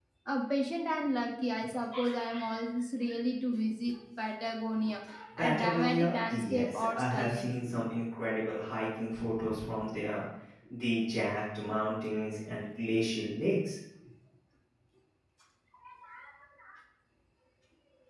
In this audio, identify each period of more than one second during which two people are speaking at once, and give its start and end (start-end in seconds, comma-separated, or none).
5.4-7.6